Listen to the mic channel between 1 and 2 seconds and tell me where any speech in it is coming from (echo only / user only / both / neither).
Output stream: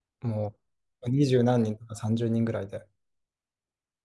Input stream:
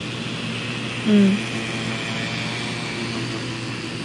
user only